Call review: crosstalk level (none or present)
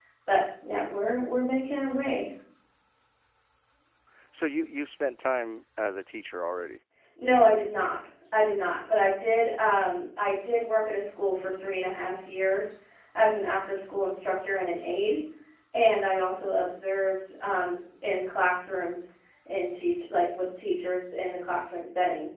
none